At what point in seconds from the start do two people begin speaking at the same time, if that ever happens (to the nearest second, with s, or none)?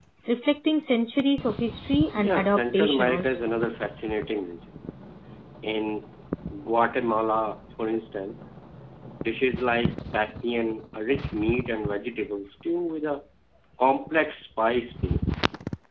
2 s